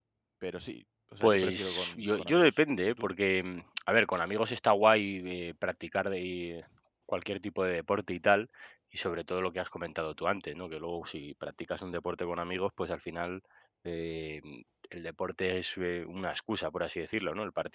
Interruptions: present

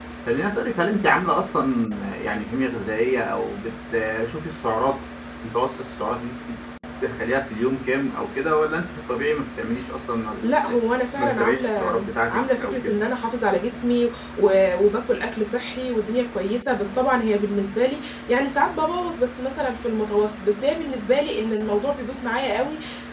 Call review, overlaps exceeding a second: present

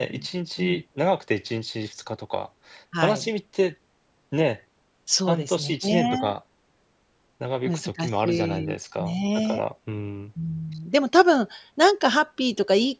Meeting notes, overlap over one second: present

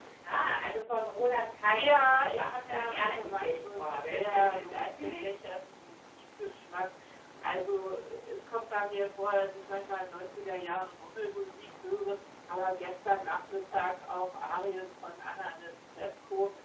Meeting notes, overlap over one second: present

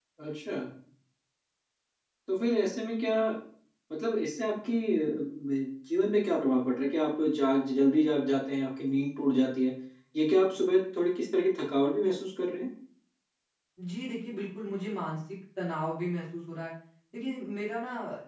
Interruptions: none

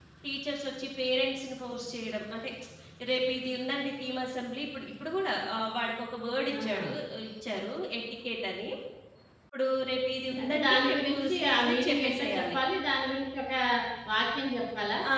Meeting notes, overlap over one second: present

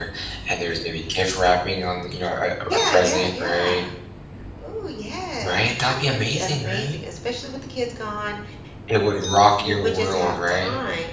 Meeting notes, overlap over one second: present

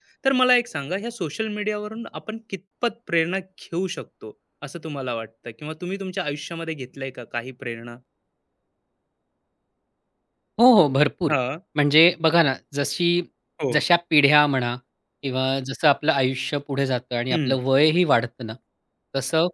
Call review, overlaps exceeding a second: none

